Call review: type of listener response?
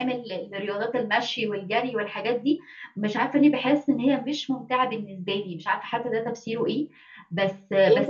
taking over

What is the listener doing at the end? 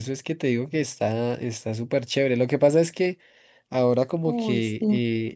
listening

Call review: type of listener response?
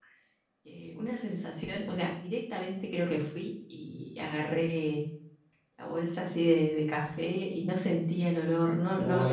taking over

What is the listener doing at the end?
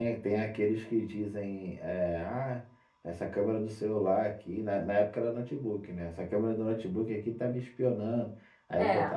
listening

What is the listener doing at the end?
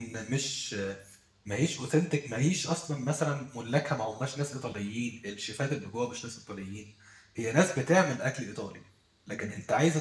listening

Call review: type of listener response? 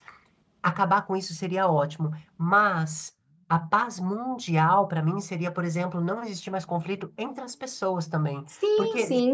taking over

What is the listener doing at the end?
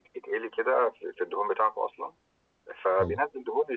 listening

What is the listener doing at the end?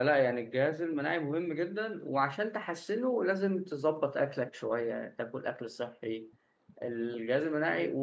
listening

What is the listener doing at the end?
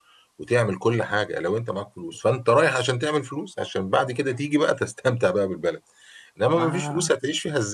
listening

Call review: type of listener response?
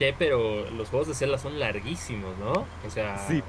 taking over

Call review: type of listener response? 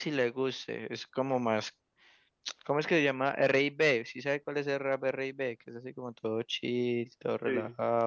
taking over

